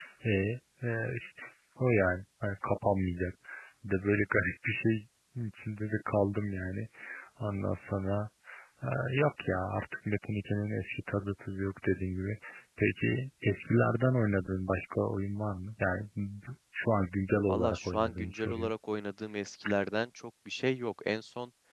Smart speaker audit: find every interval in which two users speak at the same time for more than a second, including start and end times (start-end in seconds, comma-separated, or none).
17.5-18.7